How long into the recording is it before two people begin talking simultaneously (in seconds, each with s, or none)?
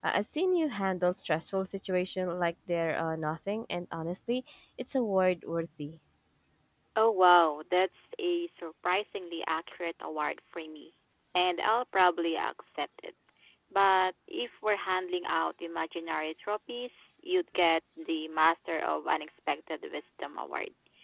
none